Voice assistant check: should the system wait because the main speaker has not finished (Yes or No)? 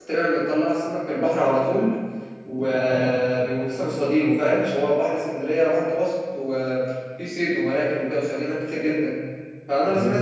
Yes